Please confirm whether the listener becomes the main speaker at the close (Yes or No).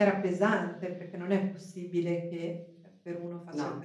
No